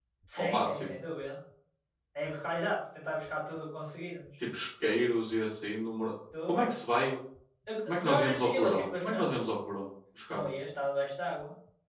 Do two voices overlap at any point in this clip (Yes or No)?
Yes